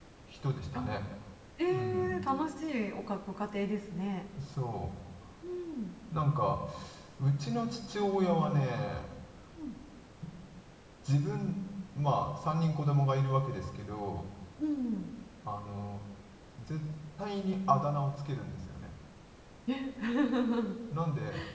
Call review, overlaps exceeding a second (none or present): none